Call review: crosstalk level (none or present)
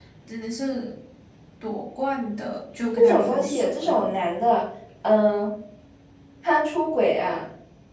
present